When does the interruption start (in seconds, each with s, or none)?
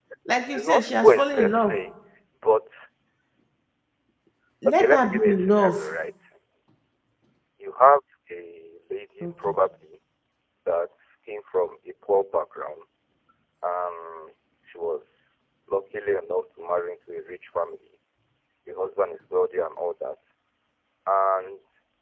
0.5 s